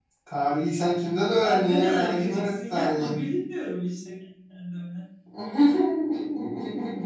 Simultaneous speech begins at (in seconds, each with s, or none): 1.4 s